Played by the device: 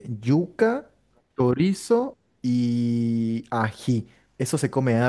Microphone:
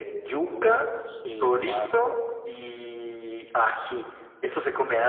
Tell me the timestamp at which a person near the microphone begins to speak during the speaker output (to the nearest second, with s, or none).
0 s